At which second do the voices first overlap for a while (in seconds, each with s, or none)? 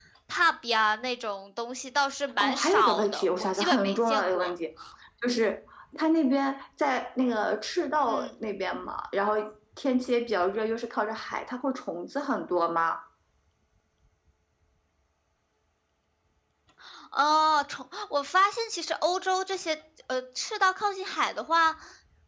2.4 s